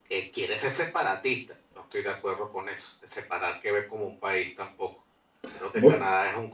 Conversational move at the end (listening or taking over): listening